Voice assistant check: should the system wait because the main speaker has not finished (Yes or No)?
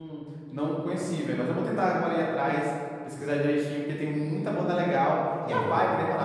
Yes